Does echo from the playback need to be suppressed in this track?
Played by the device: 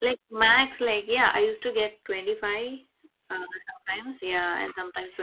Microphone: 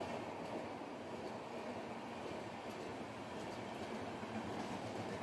No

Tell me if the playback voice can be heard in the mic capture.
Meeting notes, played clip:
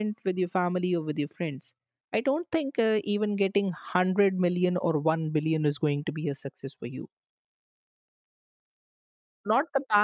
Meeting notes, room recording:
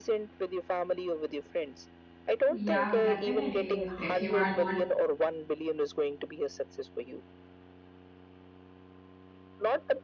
Yes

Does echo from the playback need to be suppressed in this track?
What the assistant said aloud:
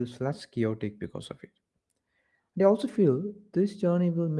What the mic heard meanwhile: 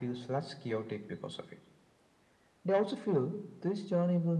Yes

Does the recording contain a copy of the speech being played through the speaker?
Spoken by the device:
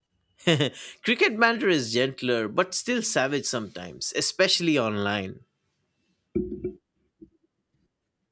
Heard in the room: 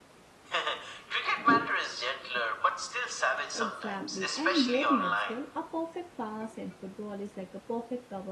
Yes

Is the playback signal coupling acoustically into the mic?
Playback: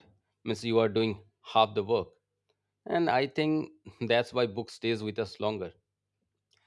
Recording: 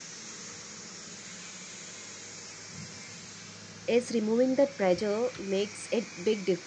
No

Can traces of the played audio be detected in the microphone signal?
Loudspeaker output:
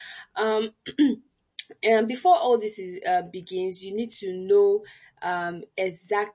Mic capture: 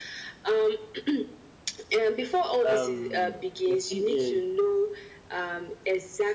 Yes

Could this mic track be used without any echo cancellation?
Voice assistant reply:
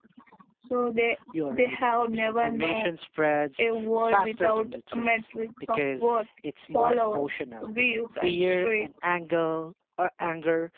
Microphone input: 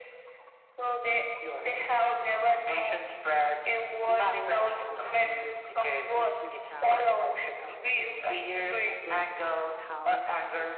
No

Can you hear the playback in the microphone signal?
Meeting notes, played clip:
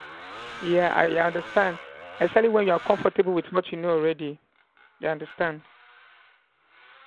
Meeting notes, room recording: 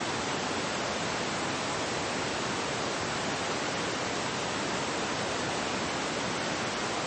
No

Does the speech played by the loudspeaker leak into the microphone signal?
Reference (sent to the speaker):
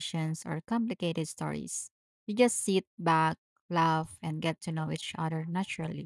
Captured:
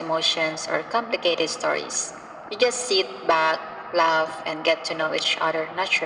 Yes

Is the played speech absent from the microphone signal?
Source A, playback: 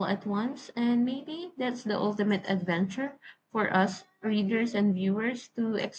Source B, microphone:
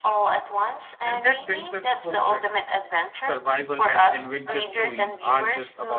No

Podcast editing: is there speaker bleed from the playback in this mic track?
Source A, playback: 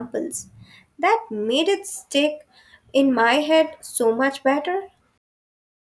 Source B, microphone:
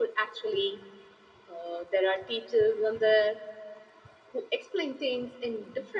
No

